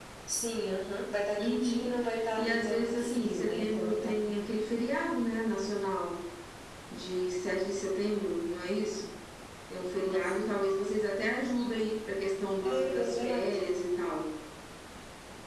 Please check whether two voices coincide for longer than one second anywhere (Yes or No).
Yes